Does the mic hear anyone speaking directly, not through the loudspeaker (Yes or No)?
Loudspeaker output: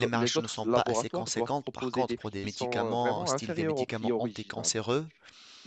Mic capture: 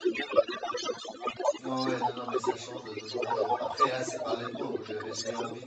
Yes